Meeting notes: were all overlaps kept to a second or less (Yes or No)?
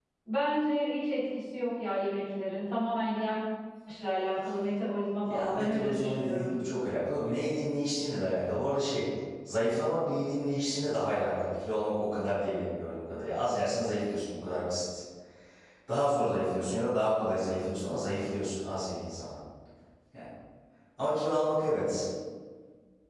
No